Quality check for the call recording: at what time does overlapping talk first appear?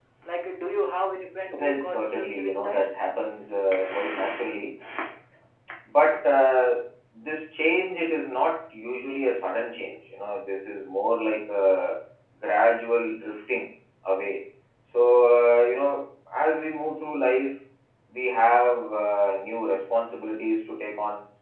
1.5 s

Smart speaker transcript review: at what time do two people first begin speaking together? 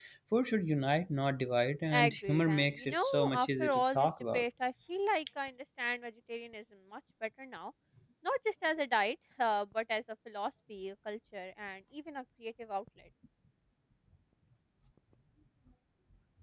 1.9 s

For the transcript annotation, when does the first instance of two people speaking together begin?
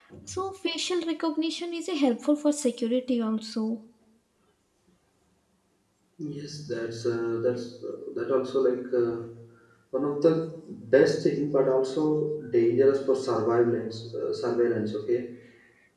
none

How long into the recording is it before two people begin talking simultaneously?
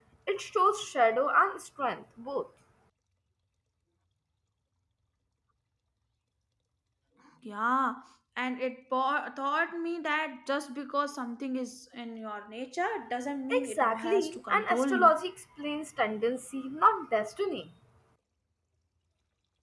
13.5 s

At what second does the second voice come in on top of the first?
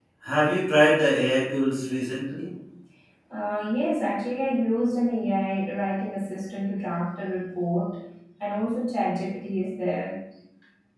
none

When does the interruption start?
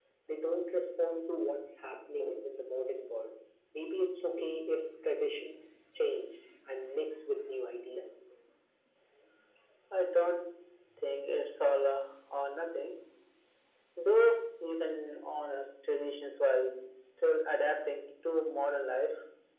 none

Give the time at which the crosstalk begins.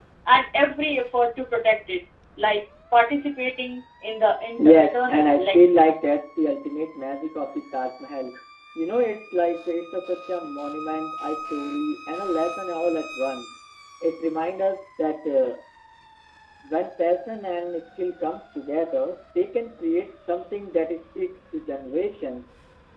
4.6 s

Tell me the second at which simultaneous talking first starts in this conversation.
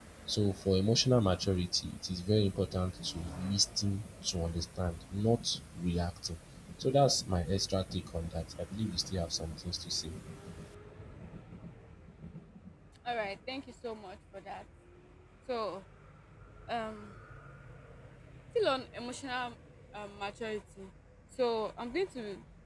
none

